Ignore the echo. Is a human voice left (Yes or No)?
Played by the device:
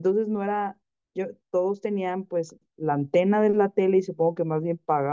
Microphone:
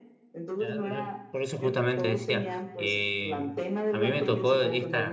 Yes